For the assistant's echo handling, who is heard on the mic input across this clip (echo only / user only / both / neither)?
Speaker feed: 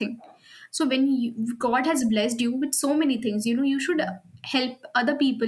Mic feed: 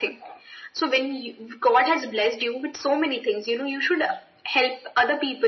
echo only